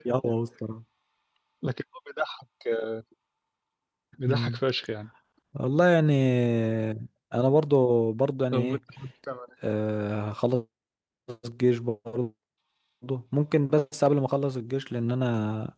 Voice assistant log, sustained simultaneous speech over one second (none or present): none